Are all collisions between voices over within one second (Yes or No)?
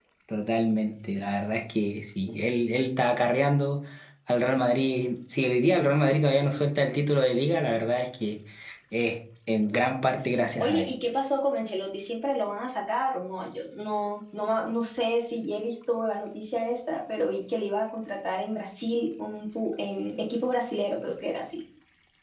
Yes